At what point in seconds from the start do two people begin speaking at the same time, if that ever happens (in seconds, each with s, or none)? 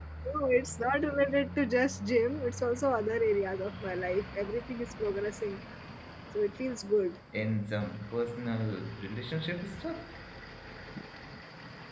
none